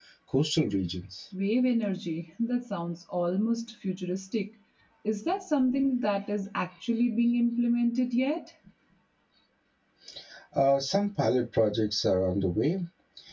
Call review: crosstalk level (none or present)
none